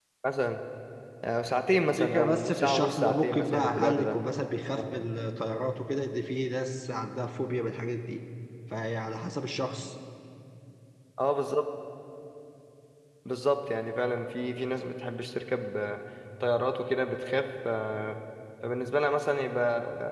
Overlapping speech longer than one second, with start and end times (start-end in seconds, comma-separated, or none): 1.7-4.2